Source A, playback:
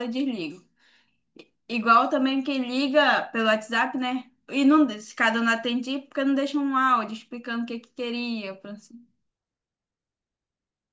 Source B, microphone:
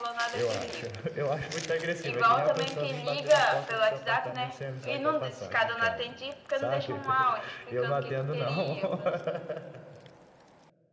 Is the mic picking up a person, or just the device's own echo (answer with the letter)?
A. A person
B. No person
A